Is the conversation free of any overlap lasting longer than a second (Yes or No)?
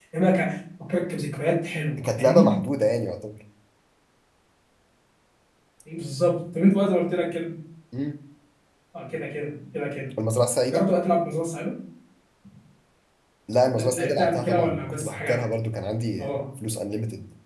No